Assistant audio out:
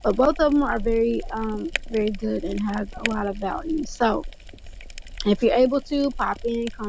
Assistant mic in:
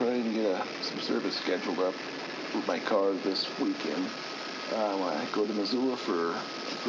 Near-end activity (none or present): present